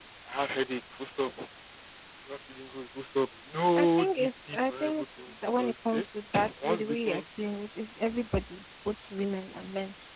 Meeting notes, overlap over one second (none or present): present